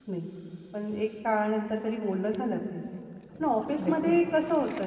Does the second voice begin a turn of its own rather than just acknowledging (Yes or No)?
No